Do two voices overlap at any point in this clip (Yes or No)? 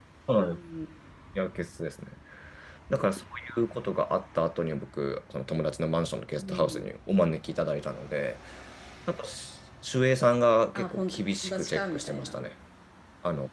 Yes